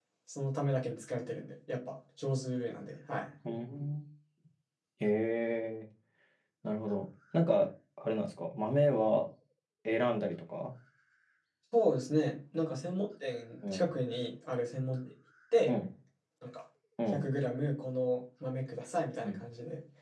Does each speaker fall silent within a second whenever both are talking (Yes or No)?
Yes